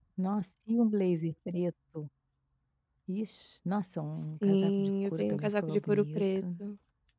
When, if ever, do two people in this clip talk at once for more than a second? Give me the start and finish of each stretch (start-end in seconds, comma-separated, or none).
4.4-6.4